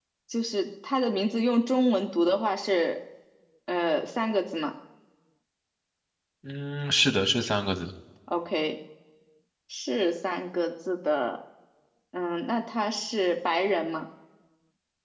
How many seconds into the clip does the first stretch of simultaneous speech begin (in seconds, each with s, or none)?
none